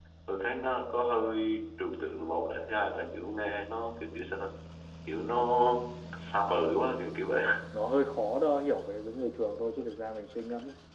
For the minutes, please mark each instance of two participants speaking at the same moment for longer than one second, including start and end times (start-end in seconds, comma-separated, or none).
none